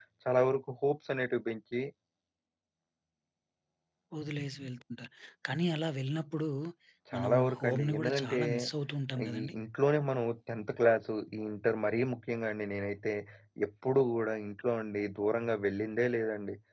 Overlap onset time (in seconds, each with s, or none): 7.1 s